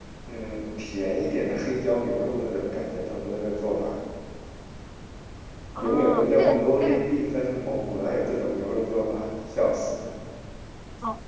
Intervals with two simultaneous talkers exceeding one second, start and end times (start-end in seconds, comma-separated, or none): 5.8-7.0